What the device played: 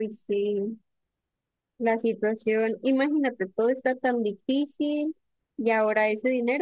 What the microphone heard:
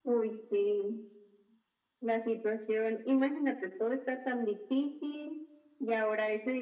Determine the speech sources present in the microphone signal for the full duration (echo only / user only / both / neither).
echo only